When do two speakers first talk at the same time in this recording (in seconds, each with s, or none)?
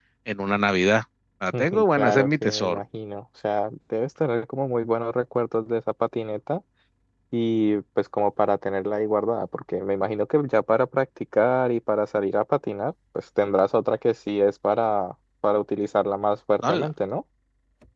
1.6 s